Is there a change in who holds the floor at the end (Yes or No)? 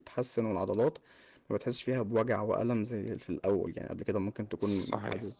No